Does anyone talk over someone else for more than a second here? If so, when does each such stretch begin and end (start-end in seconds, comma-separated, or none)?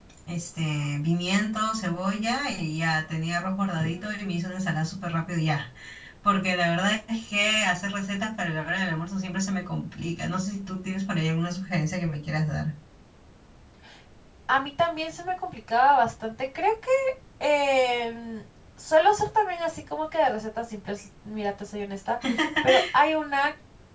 none